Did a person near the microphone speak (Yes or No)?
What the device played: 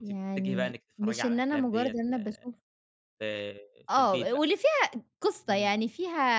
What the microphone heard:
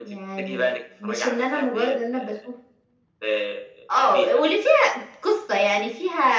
No